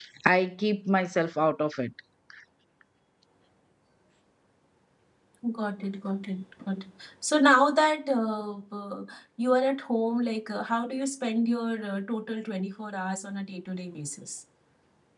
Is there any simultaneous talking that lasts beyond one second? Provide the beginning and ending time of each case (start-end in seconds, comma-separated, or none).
none